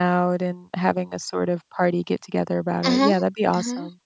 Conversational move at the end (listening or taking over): taking over